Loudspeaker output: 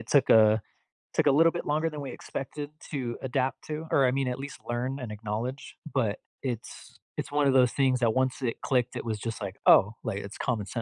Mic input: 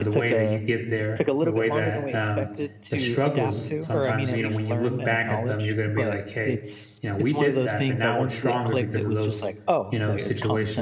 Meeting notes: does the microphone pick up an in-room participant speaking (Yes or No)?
Yes